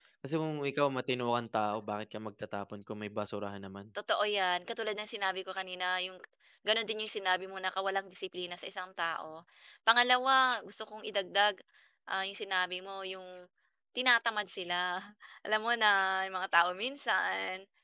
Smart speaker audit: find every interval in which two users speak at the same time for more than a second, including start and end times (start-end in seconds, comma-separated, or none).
none